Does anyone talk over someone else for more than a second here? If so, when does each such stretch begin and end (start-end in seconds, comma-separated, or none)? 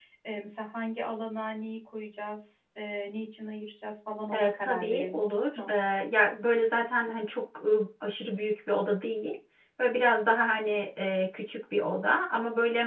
4.3-5.7